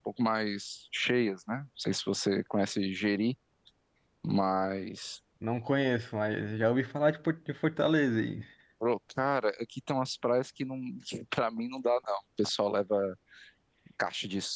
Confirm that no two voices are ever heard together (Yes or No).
Yes